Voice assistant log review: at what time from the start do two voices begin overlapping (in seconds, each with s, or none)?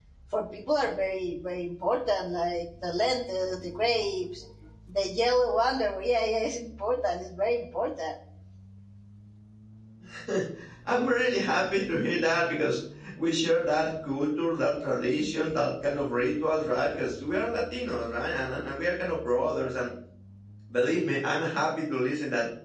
none